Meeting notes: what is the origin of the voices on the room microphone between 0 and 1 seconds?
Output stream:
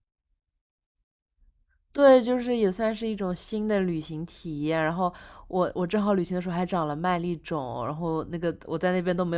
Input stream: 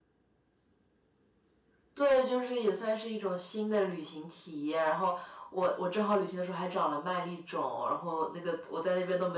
neither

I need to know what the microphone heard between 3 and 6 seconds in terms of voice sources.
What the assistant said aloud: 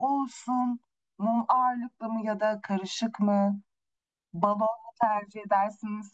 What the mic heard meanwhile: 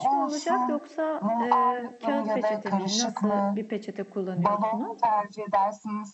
both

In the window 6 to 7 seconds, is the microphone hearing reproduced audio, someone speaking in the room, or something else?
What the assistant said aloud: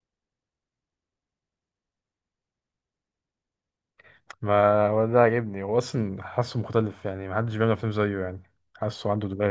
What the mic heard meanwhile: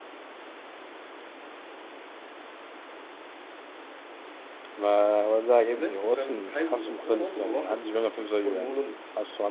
both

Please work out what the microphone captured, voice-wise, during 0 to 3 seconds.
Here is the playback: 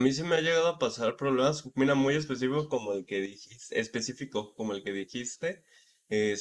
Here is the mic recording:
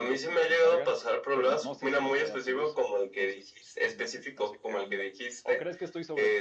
both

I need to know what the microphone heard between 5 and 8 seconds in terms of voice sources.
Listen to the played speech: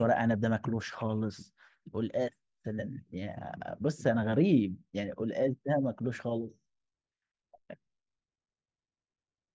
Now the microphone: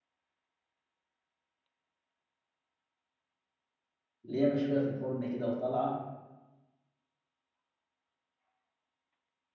user only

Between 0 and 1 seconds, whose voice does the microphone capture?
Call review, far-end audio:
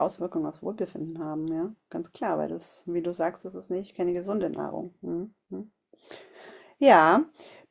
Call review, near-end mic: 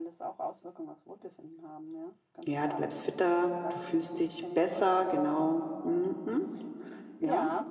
echo only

